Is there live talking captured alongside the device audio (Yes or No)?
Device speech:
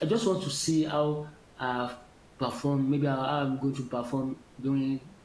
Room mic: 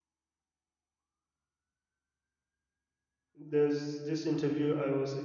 Yes